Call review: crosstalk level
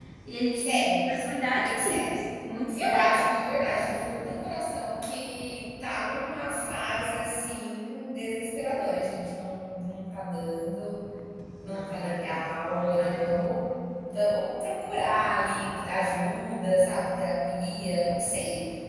present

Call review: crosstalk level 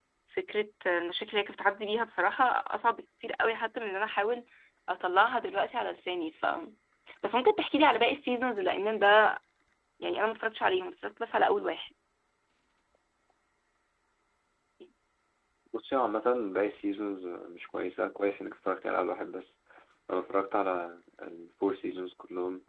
none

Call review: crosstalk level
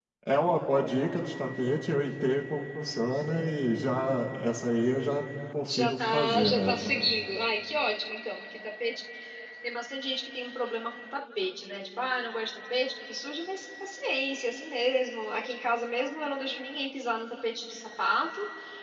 present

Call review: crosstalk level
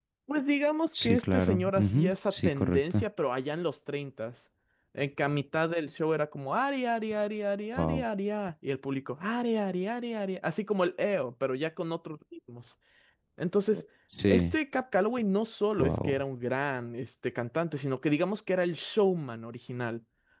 present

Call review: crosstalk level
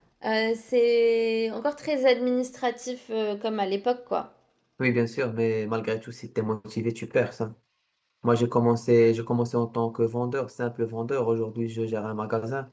none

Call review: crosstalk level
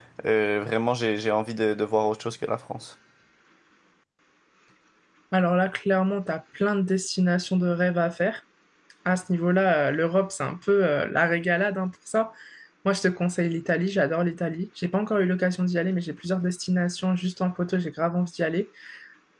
none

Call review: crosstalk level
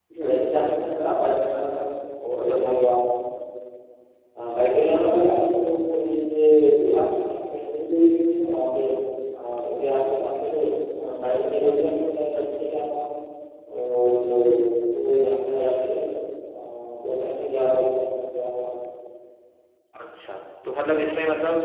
none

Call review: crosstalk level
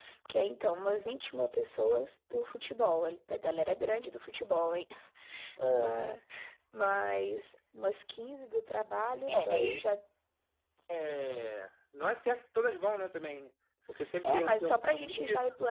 present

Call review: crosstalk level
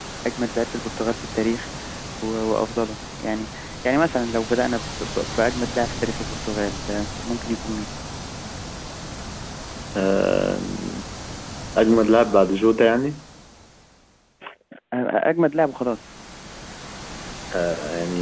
none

